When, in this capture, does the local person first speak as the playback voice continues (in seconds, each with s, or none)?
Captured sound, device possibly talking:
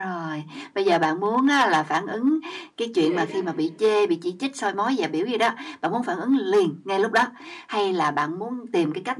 3.0 s